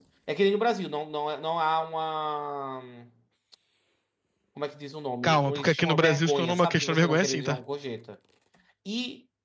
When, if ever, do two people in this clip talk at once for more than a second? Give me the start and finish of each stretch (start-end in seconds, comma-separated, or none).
5.2-7.6